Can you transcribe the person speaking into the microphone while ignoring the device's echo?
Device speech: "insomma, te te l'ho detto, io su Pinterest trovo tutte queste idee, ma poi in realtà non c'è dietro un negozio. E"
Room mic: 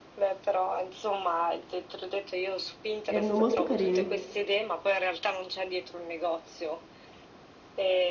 Erano molto carini.

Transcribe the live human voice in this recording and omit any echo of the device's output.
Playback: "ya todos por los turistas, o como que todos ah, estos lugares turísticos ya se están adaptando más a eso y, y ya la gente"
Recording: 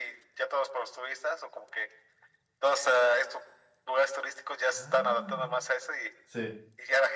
Ah, sí,

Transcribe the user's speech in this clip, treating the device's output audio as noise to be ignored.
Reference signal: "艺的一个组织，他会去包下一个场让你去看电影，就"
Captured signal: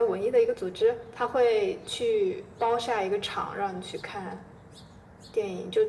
none

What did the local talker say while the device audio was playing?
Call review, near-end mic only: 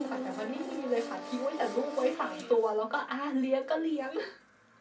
none

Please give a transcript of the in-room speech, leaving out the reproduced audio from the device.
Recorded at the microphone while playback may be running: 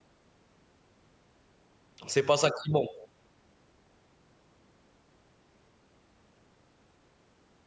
c'est pas ça qui manque.

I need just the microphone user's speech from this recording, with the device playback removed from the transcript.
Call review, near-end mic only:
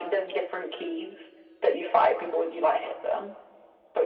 none

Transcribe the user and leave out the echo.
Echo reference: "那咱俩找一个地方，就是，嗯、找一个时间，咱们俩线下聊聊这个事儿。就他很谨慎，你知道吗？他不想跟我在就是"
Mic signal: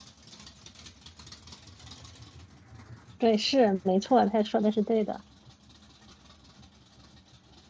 对，是没错，他说的是对的。

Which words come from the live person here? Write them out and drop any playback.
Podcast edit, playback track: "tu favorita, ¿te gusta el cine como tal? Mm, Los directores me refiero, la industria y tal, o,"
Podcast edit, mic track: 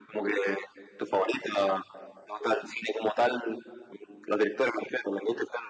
none

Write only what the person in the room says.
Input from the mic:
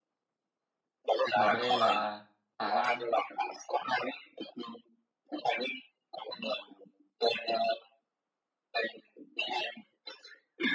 và D là Hà Lan

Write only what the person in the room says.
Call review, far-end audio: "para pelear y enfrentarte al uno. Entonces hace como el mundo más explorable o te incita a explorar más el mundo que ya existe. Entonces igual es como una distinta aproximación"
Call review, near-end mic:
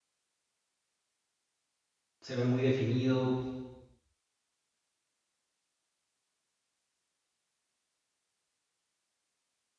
se ve muy definido,

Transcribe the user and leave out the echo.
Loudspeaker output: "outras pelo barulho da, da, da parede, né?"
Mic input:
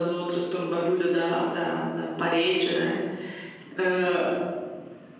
none

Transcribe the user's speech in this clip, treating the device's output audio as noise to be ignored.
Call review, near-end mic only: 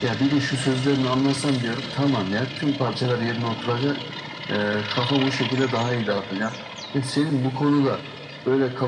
none

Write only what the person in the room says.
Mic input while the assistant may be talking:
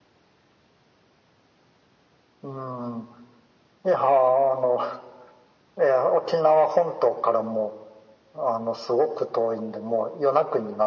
none

